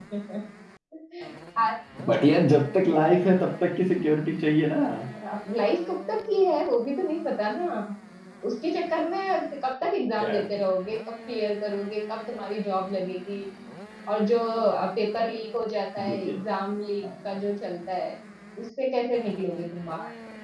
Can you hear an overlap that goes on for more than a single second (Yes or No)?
No